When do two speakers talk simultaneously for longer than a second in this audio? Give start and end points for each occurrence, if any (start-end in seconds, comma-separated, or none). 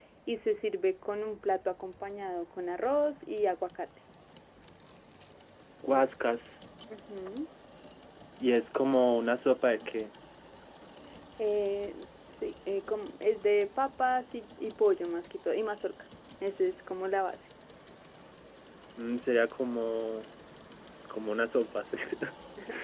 none